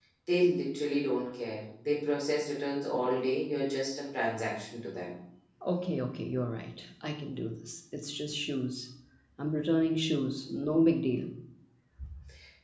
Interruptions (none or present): none